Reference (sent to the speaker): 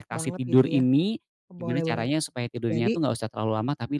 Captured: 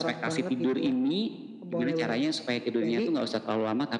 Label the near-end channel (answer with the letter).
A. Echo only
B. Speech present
A